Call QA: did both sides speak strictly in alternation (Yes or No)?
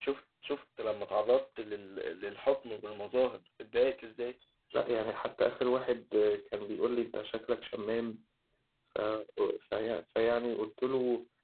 Yes